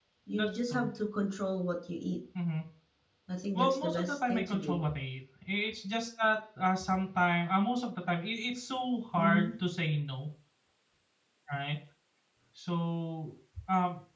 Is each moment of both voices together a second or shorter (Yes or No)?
No